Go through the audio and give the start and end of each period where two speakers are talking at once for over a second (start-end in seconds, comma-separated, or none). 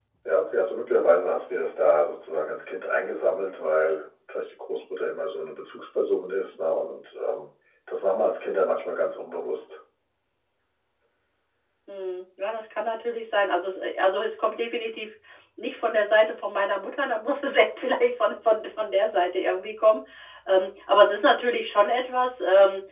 none